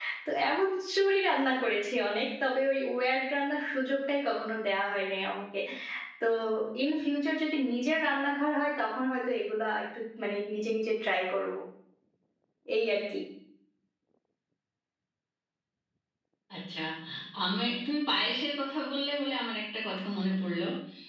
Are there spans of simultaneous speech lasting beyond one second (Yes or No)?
No